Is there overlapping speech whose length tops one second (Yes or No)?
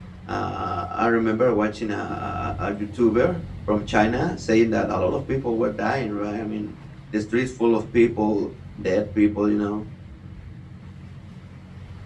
No